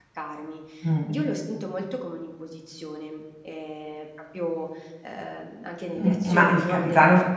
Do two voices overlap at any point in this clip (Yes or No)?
Yes